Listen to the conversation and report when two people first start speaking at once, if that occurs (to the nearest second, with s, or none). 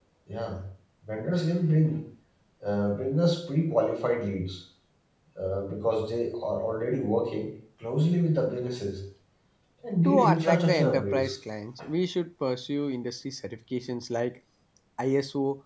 10 s